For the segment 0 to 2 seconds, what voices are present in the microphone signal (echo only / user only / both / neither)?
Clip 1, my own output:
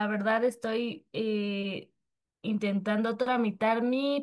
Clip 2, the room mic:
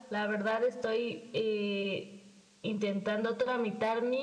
echo only